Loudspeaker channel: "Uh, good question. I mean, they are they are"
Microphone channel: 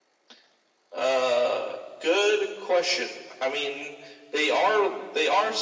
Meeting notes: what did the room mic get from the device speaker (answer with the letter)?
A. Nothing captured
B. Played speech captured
B